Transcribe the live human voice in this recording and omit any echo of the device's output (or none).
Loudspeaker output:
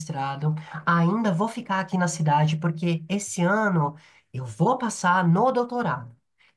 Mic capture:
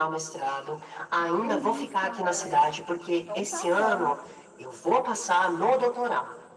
Que delícia, Andréia. Então tá bom.